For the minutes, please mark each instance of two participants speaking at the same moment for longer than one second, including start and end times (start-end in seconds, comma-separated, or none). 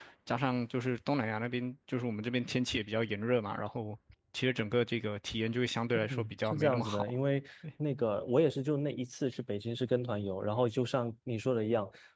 5.9-7.2